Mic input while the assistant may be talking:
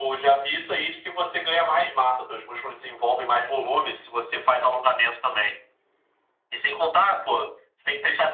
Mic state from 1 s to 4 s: echo only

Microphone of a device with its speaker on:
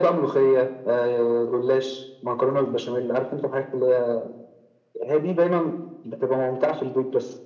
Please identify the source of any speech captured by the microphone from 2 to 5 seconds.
echo only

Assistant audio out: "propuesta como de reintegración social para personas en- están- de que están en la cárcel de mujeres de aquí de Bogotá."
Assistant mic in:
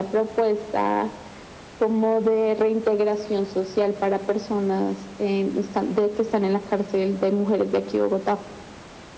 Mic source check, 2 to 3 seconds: echo only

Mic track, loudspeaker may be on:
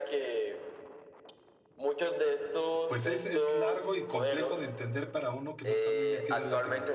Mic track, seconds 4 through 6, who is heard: both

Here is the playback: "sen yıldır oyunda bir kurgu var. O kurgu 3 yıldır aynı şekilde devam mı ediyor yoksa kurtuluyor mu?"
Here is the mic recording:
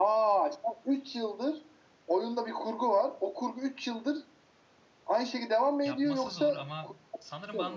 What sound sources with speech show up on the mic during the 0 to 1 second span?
echo only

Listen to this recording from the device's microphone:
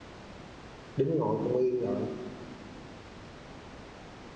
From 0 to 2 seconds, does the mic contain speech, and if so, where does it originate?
user only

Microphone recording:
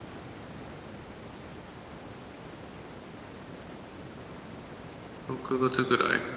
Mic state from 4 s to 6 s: user only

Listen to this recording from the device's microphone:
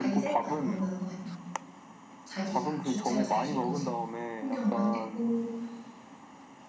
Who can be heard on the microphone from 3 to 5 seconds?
both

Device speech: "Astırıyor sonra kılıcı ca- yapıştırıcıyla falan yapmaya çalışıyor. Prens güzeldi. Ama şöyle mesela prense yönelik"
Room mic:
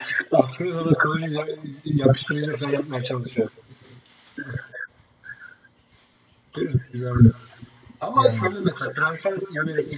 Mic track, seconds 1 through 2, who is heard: echo only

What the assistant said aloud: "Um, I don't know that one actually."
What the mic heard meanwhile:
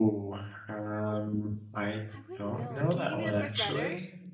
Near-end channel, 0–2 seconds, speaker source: echo only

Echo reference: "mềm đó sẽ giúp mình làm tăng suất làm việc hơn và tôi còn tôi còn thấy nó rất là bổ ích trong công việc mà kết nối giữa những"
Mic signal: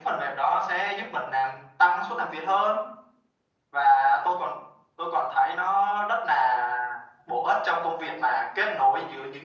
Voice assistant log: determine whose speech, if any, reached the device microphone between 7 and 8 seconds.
echo only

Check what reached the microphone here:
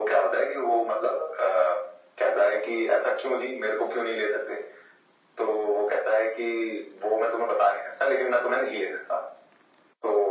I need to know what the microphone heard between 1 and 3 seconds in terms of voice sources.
echo only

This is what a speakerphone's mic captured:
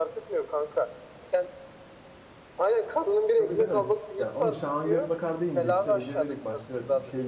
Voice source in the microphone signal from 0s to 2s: echo only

